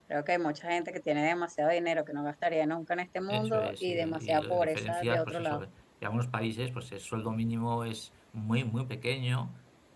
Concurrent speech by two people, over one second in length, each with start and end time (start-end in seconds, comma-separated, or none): 3.3-5.6